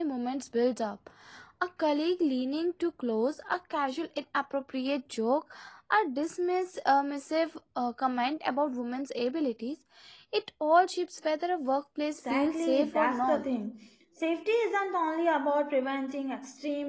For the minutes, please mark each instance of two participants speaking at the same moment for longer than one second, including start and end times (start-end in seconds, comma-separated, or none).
12.2-13.4